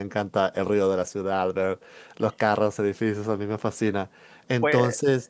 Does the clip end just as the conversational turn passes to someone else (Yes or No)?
No